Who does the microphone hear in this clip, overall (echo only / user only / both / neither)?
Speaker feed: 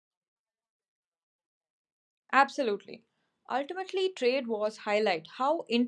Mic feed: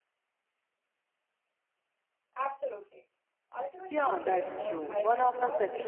both